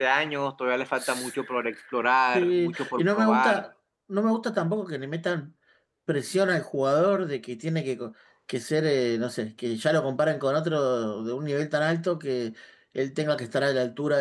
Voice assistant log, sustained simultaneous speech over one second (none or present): present